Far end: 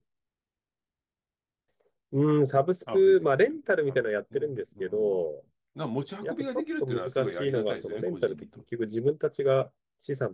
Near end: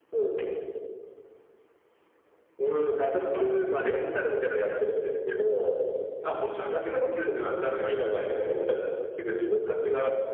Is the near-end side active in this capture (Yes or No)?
No